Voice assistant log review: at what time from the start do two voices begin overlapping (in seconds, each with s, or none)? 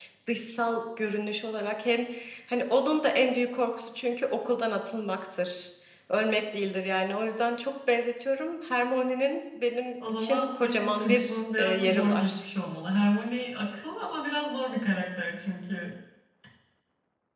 10.0 s